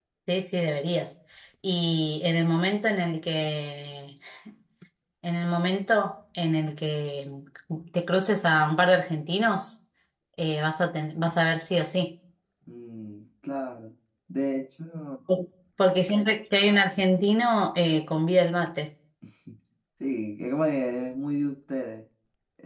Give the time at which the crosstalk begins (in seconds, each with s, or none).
none